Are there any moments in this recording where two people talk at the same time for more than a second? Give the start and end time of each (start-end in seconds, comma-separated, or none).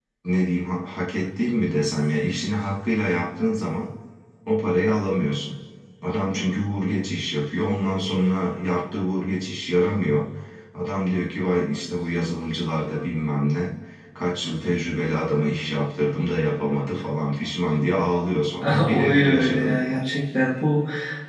18.8-20.0